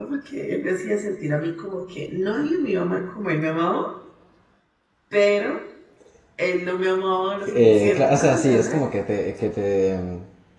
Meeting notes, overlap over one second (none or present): present